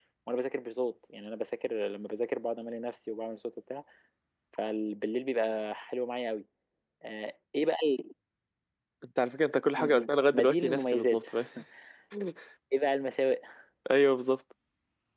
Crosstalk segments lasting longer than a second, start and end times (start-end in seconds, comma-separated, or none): 9.8-11.3